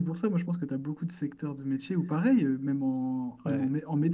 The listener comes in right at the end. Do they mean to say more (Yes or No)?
No